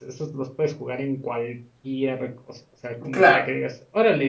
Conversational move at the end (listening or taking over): listening